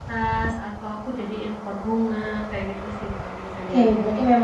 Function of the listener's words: taking over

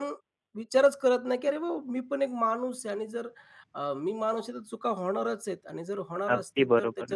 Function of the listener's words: taking over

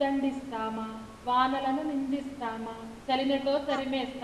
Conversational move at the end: listening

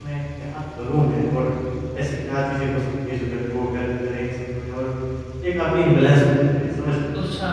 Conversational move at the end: taking over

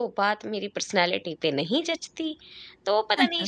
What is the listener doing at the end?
listening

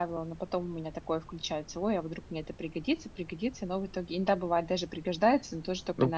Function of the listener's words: taking over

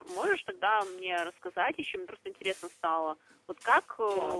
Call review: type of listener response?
listening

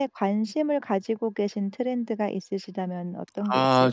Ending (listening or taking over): taking over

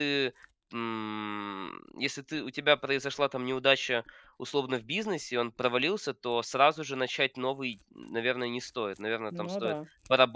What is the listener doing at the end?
listening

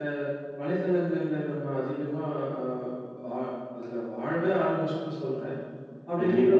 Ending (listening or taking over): listening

